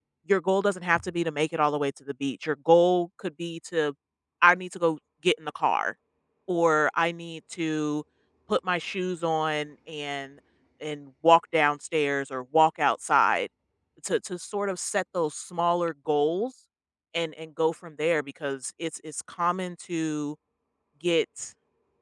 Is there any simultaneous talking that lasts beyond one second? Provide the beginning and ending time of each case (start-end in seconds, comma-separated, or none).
none